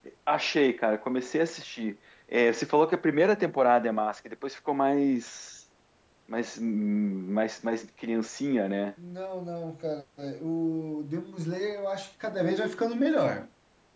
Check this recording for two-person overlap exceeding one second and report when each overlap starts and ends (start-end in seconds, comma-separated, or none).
none